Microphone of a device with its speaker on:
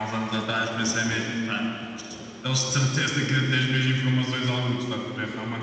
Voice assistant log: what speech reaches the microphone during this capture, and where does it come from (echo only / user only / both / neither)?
echo only